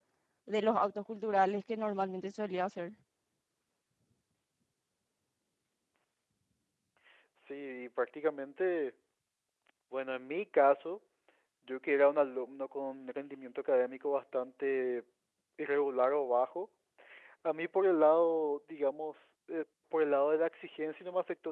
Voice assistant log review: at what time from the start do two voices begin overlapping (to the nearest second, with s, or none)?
none